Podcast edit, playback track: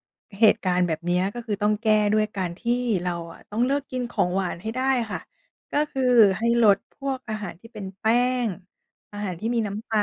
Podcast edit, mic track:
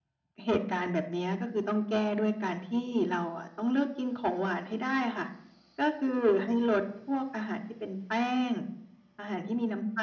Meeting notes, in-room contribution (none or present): none